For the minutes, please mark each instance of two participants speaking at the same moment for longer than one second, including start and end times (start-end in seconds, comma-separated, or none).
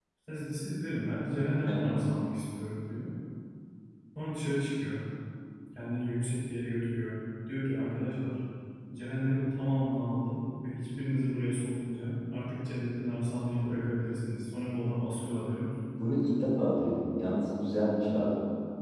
none